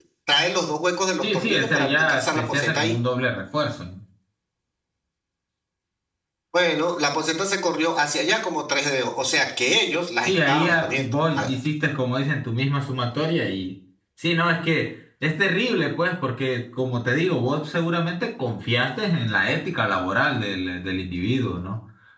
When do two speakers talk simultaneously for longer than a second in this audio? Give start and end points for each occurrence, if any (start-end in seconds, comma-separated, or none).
1.2-2.9, 10.2-11.5